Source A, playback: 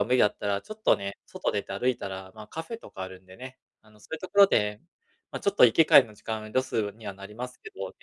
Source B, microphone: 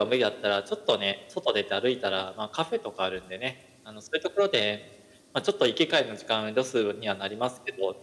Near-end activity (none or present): none